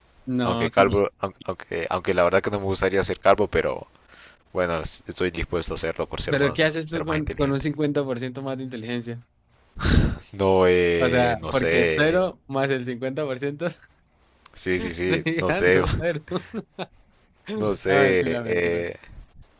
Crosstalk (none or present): present